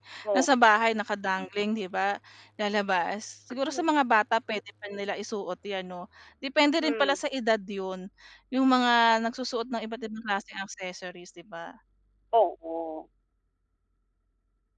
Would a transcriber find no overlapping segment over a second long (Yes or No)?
Yes